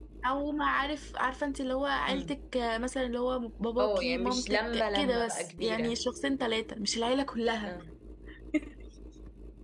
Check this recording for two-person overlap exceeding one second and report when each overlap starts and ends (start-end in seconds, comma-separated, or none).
3.8-6.0